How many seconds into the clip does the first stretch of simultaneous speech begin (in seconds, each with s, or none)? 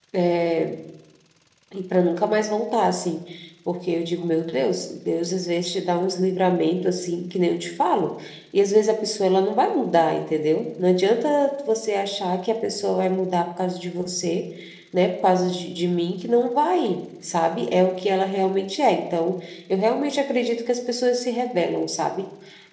none